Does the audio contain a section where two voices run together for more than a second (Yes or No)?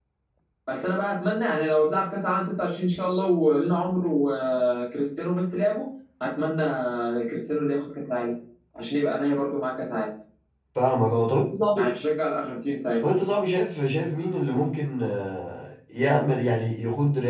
No